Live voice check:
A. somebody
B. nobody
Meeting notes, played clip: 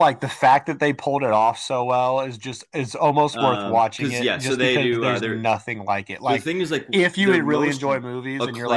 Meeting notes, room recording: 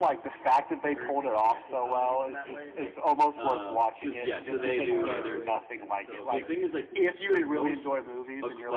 A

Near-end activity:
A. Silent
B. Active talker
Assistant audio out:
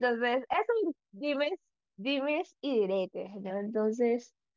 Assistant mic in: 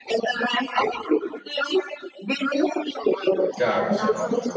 B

